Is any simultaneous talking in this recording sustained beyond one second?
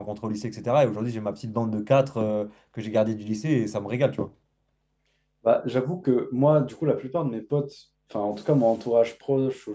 No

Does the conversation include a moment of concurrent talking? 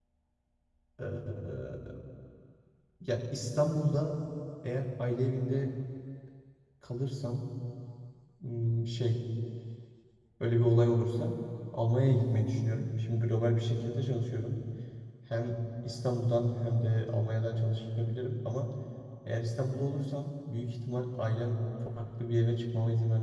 No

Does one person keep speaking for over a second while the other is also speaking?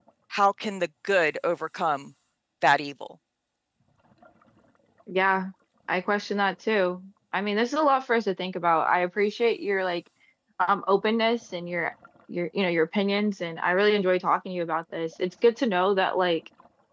No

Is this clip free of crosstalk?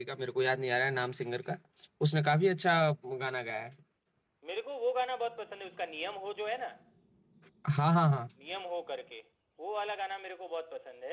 Yes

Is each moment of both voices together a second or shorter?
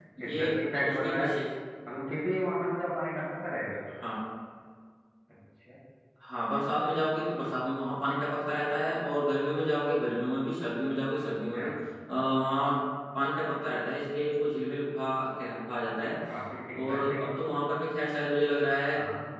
Yes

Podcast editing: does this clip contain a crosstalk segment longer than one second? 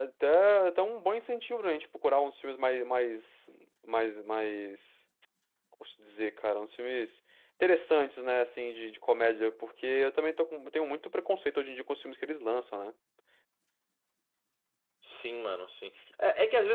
No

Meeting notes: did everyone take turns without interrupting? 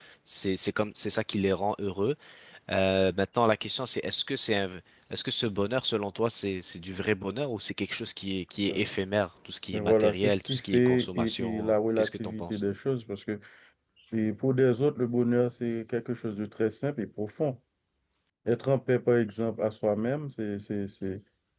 No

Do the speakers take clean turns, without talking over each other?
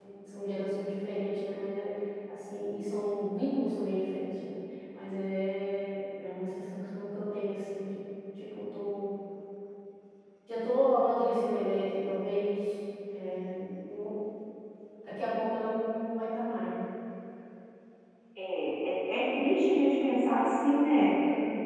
Yes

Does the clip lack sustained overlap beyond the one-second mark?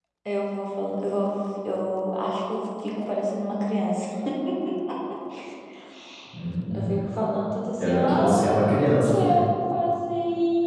No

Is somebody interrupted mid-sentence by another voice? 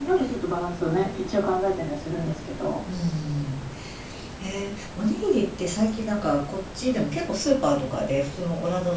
No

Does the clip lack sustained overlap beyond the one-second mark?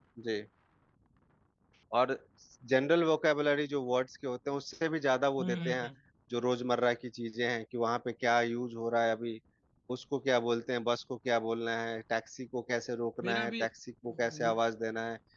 Yes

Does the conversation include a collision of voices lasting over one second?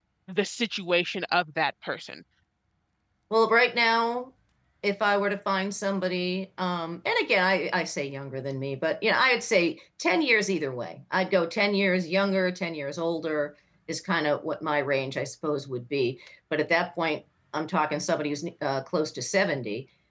No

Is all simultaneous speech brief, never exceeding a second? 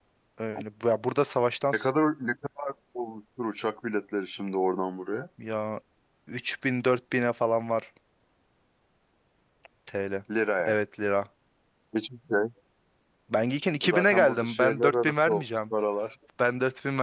No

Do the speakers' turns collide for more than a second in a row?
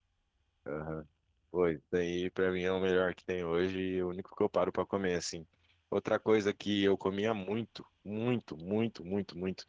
No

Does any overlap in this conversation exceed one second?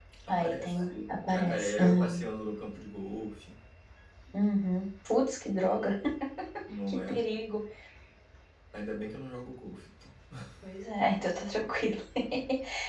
Yes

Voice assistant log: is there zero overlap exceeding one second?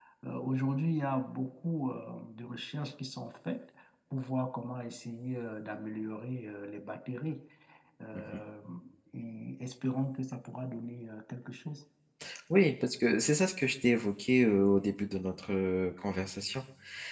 Yes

